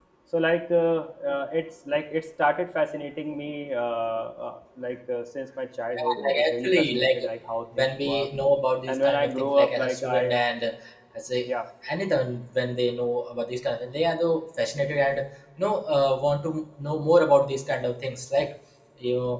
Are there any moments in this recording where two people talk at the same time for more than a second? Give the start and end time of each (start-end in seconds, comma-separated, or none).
6.0-7.2, 8.9-10.3